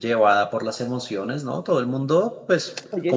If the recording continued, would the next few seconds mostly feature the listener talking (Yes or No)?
No